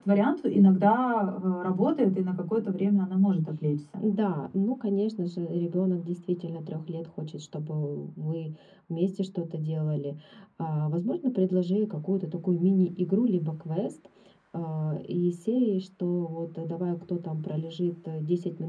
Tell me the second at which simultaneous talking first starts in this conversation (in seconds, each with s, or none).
none